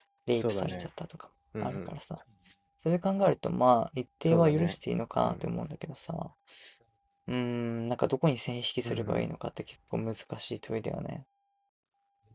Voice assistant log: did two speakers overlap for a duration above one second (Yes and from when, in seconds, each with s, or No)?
No